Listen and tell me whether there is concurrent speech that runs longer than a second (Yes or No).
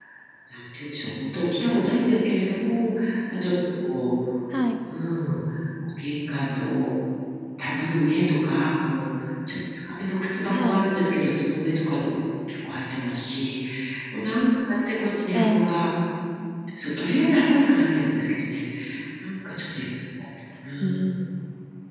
No